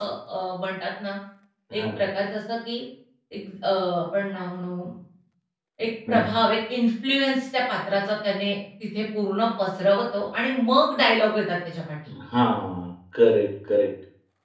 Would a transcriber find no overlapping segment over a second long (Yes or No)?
Yes